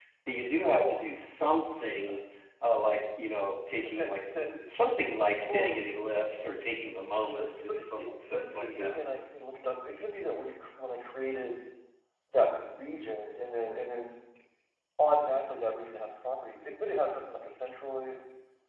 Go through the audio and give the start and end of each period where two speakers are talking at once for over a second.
7.4-9.0

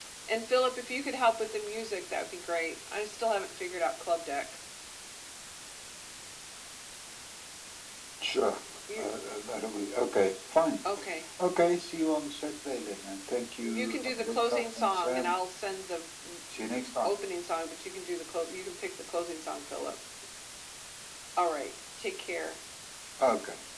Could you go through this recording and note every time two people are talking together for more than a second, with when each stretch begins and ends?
13.6-15.3

